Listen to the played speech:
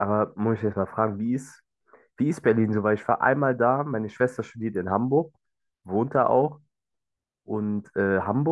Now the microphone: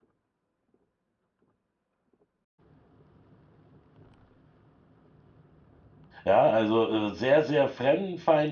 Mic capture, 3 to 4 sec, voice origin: neither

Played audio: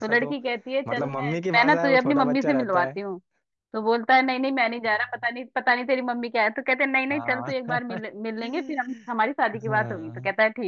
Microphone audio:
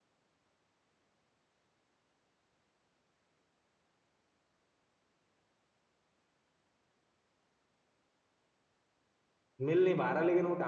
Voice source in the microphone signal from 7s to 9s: neither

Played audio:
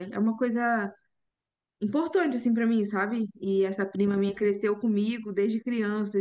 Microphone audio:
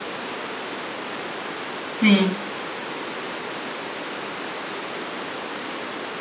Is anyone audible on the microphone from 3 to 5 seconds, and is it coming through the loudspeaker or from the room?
neither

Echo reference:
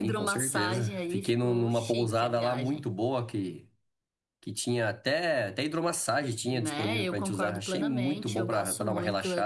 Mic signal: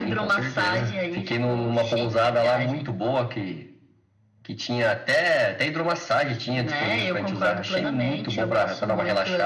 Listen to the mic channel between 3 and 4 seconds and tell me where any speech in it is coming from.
echo only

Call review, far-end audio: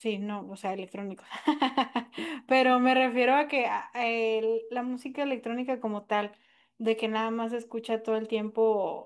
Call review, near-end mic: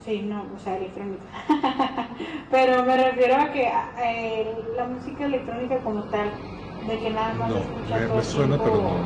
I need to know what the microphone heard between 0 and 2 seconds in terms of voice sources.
echo only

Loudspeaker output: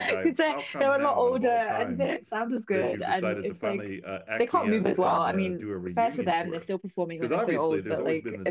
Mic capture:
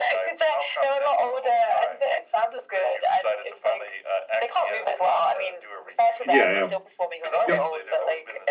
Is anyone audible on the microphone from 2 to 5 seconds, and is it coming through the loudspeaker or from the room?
echo only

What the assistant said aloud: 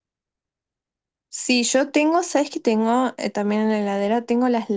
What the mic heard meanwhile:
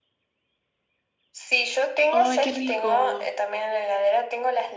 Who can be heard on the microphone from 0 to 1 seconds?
neither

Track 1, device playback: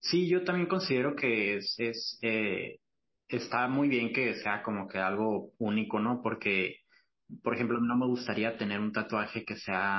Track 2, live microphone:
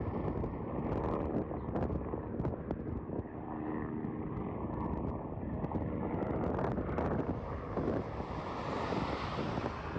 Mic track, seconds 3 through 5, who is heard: neither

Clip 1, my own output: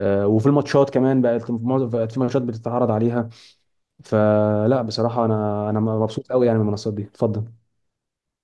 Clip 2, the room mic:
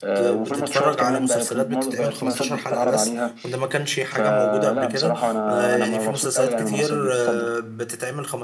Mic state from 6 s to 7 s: both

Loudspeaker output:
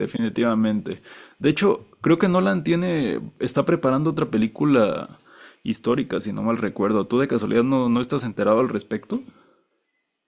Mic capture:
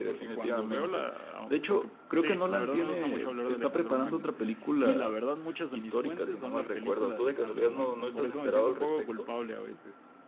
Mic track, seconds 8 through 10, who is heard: both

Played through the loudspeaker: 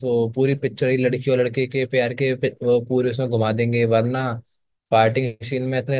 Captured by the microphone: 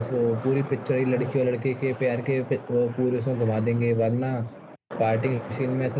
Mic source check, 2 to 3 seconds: echo only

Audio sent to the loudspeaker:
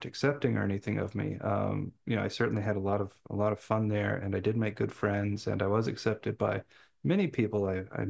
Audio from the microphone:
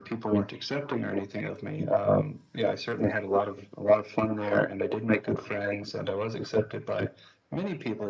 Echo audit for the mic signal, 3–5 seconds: echo only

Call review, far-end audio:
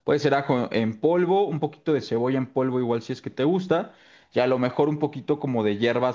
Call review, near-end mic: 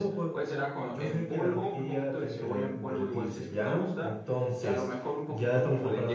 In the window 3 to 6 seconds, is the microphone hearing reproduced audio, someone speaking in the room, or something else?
both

